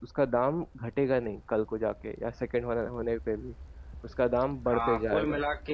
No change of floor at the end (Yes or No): No